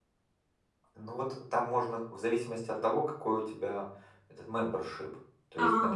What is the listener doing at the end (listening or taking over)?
listening